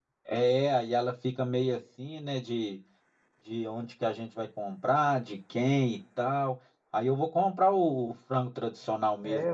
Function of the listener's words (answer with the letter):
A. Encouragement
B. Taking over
B